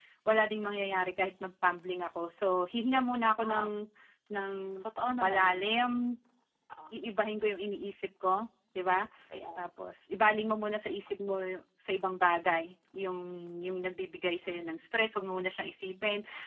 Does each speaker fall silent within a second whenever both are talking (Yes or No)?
Yes